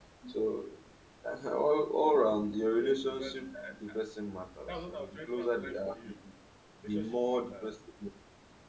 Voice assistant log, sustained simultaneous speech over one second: present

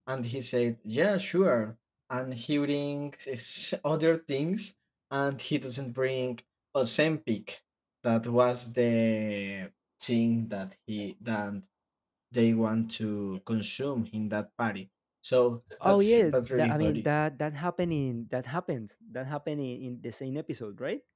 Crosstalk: present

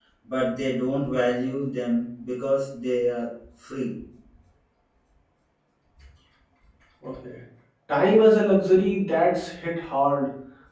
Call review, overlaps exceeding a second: none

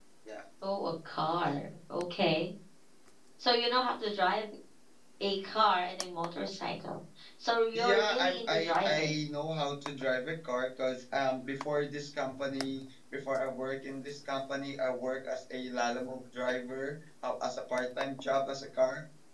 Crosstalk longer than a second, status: present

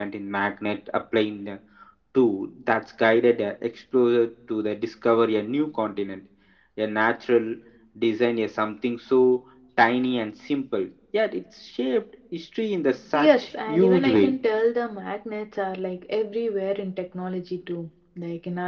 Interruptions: present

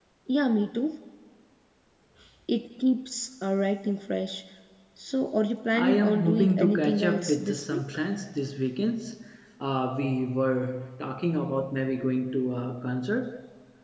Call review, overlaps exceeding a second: present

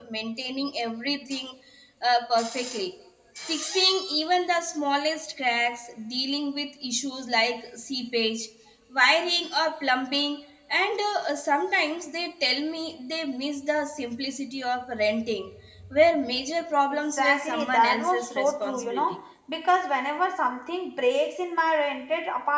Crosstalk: present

